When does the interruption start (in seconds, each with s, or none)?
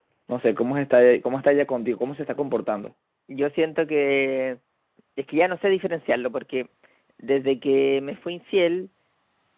none